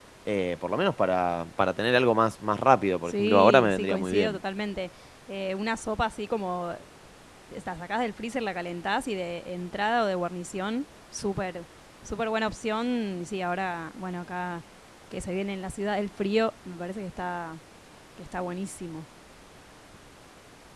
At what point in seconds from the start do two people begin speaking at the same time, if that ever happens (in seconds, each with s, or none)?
3.1 s